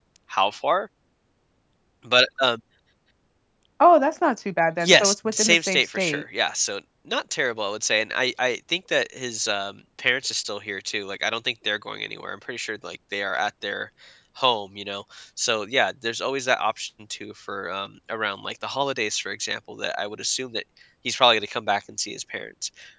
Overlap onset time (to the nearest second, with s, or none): 5 s